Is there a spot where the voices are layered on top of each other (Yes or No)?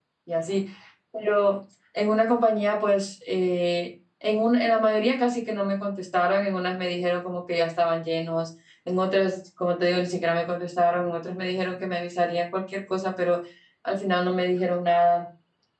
No